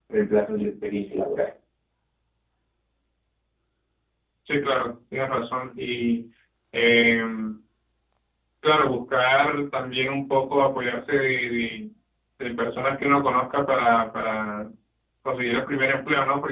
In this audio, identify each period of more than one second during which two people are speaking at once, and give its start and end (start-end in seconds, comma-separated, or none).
none